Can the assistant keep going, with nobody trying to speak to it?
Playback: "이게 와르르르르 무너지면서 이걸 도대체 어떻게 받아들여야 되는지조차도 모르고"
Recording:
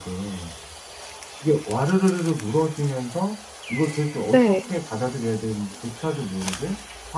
No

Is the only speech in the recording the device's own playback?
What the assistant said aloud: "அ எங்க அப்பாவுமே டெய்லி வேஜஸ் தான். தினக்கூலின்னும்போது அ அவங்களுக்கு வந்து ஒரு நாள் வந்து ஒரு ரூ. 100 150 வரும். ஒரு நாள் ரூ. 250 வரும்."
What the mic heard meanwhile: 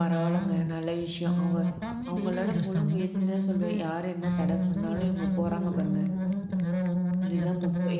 No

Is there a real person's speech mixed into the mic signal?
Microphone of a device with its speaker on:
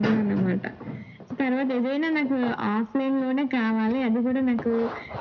No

